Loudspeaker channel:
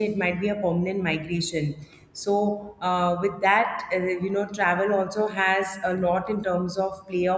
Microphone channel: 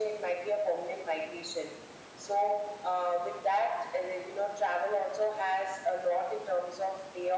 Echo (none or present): present